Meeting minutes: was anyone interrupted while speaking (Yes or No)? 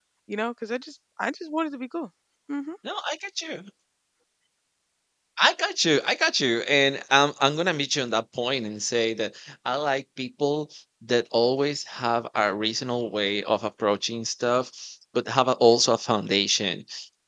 No